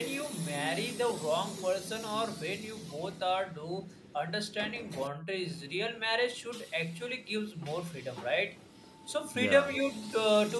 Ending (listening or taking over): listening